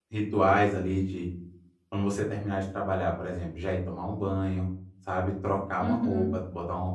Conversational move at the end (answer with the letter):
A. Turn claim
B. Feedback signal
B